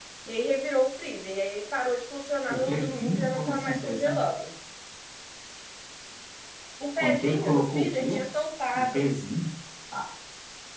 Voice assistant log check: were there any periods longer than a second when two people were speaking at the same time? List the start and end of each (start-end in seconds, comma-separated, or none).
2.5-4.2, 7.0-8.2